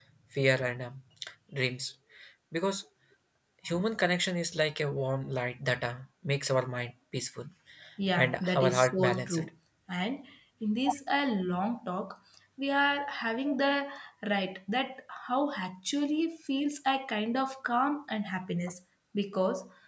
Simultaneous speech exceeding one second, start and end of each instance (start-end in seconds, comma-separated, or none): 8.2-9.5